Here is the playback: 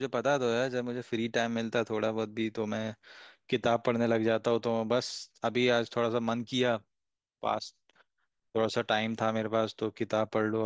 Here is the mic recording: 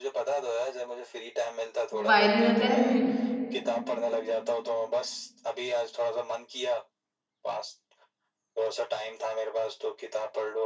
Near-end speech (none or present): present